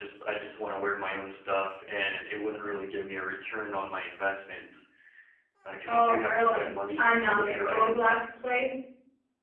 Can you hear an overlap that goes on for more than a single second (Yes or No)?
Yes